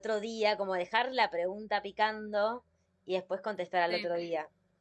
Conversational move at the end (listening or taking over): listening